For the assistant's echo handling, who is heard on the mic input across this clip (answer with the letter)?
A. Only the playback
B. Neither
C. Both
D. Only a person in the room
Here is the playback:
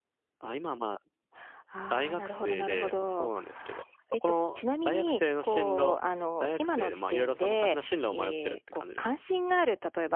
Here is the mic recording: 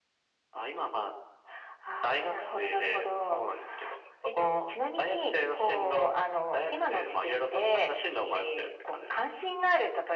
A